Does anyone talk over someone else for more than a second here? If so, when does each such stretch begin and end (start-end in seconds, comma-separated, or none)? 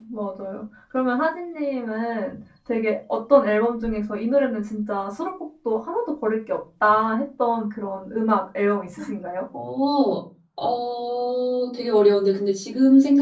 none